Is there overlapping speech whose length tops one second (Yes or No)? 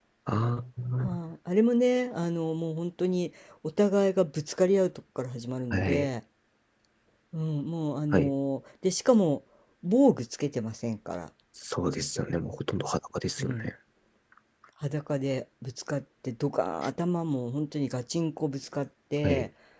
No